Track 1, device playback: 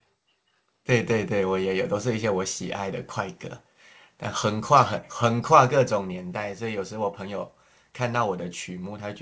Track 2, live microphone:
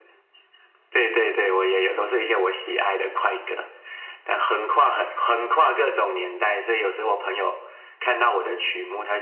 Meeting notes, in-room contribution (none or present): none